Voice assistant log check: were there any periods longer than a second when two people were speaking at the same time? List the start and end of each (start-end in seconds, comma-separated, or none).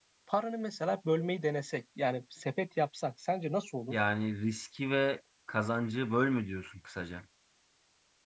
none